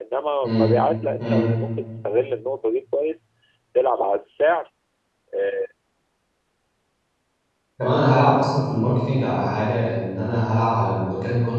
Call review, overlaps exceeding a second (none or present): none